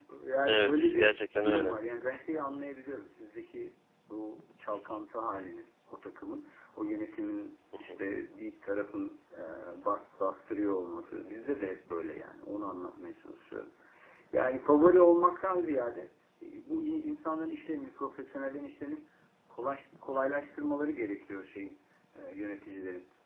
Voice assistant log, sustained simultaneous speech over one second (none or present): present